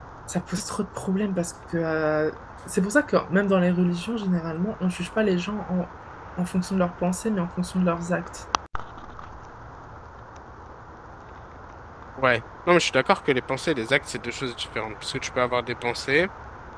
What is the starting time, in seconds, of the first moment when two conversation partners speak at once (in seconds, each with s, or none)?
none